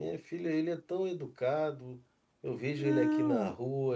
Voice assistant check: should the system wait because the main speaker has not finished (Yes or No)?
Yes